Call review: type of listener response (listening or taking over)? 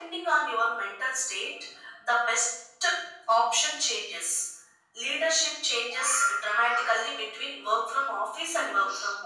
taking over